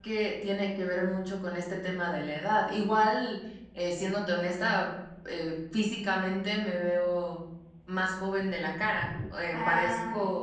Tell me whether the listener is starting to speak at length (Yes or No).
No